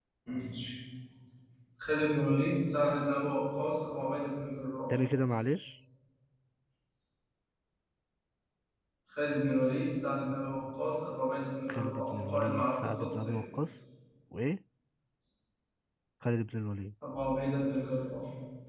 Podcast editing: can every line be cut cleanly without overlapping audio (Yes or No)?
No